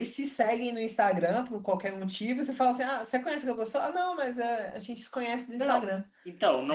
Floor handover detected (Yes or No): Yes